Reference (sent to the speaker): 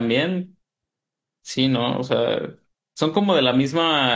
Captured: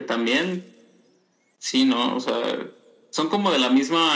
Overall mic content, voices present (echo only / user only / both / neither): echo only